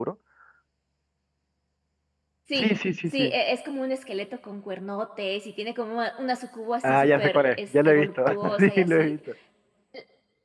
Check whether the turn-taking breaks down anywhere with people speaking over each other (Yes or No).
Yes